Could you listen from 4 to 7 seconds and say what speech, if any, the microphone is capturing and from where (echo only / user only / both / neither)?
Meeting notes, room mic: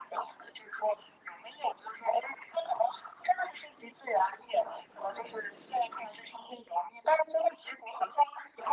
echo only